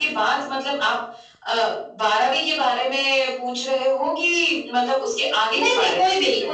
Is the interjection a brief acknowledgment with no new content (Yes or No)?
No